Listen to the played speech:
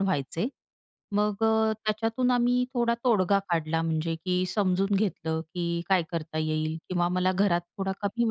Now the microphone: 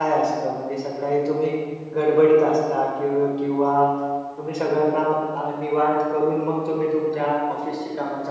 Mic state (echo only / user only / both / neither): user only